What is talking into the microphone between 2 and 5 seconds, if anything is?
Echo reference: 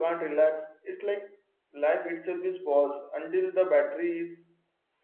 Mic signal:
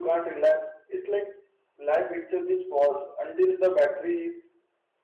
echo only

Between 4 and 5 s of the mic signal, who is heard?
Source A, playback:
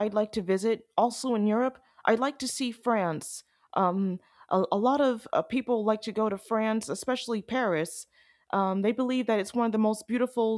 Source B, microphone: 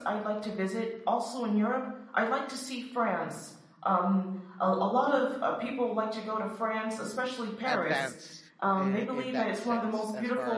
echo only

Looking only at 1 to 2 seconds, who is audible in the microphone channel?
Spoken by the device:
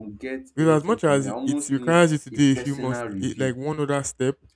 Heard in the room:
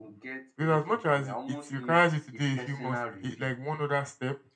echo only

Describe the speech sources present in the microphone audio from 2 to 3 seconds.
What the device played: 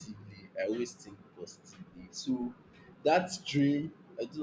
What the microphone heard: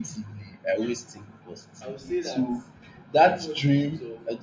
both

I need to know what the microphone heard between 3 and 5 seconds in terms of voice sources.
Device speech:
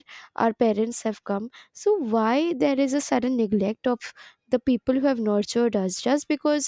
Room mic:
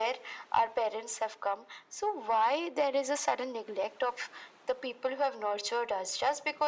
echo only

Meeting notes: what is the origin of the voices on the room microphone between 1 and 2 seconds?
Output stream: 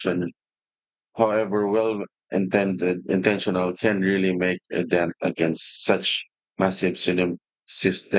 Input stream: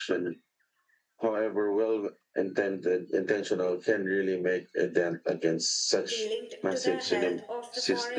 echo only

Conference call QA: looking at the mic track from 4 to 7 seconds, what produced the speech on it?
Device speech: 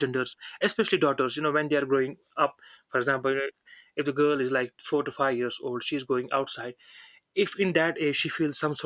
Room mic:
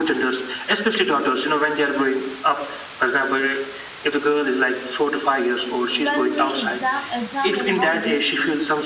both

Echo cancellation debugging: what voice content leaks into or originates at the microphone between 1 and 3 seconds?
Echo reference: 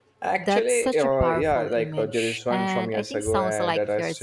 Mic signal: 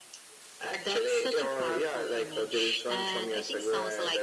echo only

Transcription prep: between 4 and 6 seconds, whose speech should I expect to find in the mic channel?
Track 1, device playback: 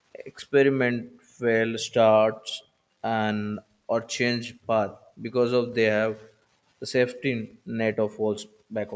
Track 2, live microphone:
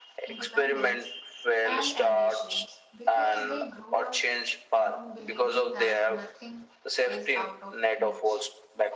both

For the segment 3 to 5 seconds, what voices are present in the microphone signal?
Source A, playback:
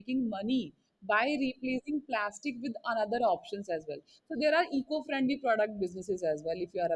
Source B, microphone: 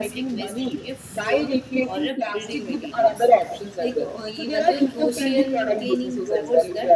both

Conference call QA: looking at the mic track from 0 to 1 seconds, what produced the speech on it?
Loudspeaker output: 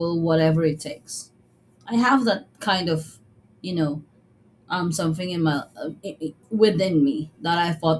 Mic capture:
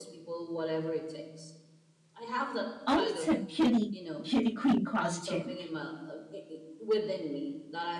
echo only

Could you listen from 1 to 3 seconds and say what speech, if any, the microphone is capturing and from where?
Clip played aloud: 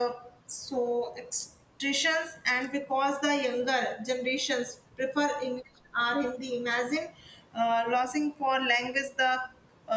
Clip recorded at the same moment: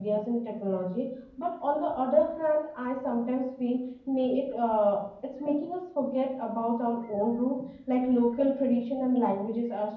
user only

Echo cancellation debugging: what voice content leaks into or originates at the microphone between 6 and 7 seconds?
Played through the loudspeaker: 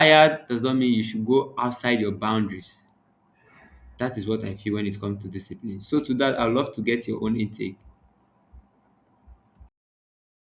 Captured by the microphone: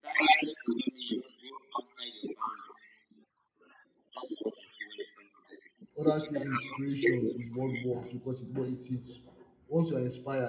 both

